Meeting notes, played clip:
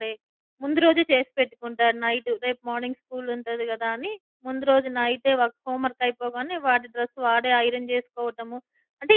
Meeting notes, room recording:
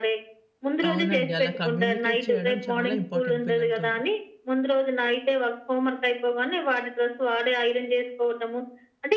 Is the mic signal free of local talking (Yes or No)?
No